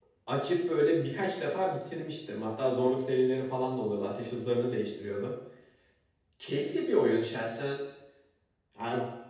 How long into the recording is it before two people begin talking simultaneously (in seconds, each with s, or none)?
none